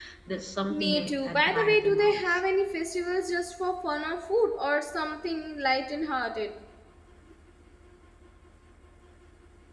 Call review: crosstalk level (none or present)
present